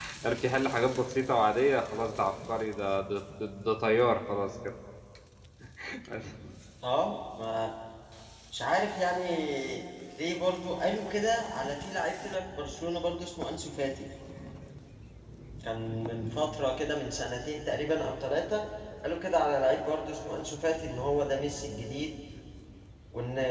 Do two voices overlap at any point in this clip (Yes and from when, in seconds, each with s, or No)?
No